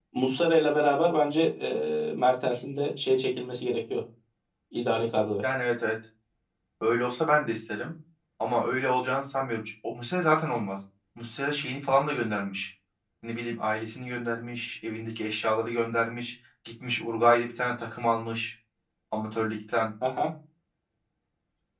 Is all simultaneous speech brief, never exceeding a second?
Yes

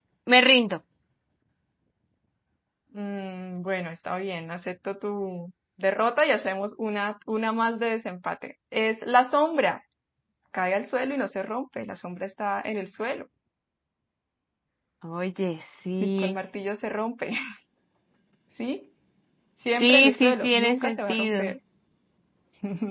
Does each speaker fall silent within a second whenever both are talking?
No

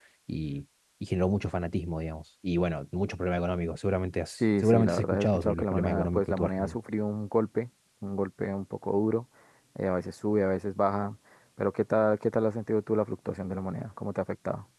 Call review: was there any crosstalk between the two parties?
Yes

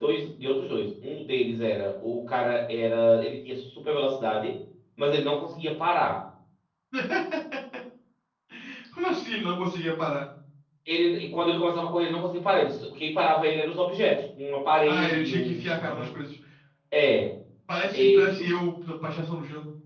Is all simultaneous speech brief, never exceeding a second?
No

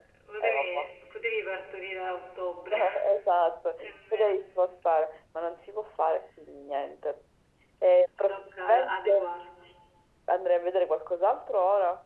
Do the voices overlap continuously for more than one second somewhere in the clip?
Yes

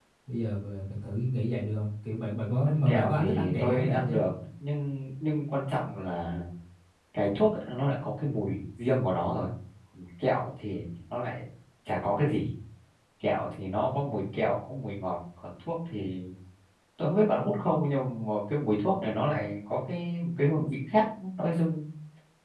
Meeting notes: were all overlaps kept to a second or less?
No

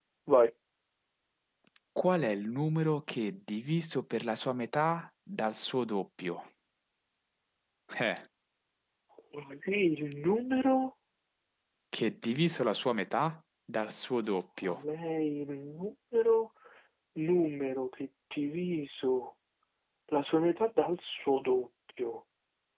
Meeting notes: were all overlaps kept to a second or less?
Yes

